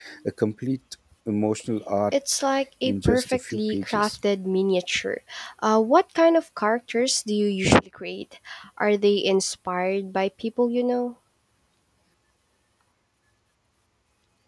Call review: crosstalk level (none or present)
present